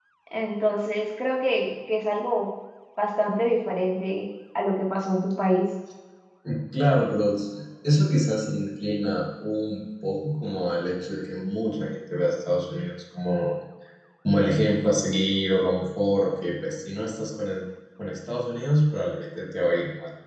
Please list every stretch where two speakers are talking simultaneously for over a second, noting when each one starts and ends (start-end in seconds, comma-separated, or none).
none